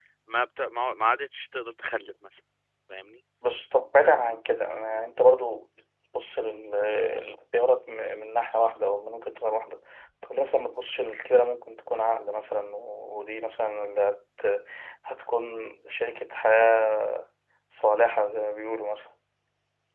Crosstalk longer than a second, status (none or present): none